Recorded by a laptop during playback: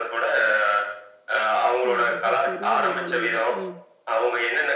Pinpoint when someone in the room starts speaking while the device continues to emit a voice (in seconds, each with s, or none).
1.9 s